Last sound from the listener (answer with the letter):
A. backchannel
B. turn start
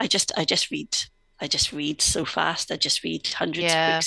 B